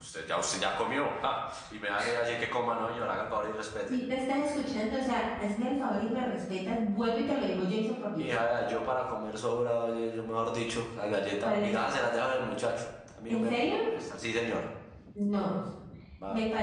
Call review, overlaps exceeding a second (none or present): none